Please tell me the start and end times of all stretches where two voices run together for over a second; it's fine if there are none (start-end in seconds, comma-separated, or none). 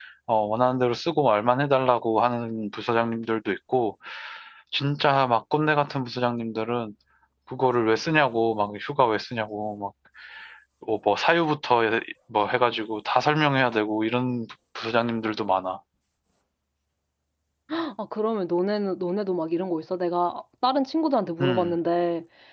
none